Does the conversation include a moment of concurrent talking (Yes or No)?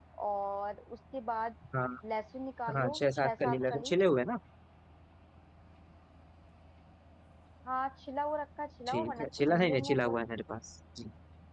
Yes